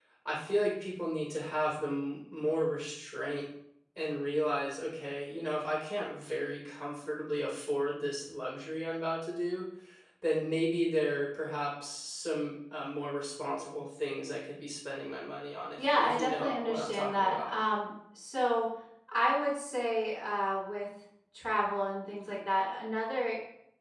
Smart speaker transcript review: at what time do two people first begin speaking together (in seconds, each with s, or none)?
15.8 s